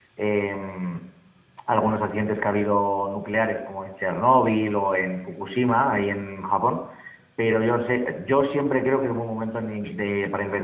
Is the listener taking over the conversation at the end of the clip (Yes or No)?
No